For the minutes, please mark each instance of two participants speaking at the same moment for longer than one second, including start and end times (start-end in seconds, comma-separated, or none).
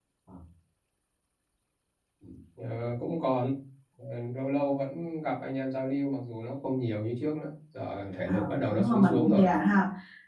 8.3-9.5